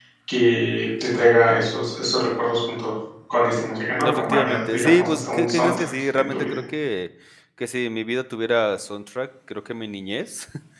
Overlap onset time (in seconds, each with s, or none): 4.0 s